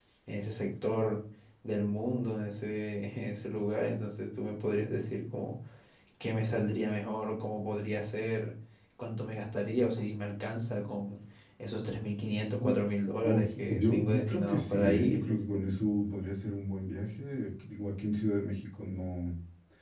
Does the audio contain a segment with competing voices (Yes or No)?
Yes